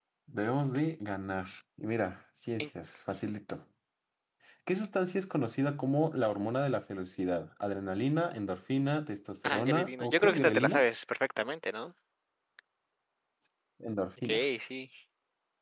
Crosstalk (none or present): present